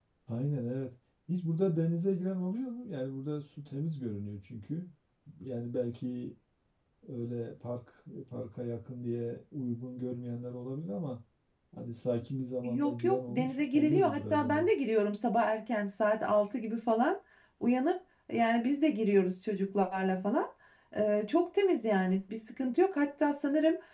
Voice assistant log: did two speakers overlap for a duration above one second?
Yes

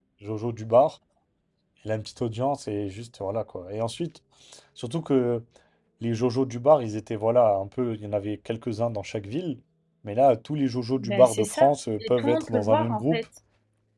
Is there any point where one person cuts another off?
Yes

